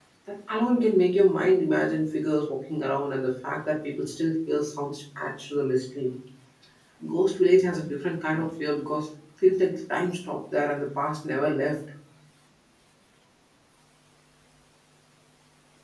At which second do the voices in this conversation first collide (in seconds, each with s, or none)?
none